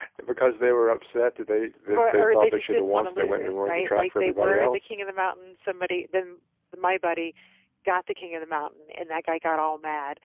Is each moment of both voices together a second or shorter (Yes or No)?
No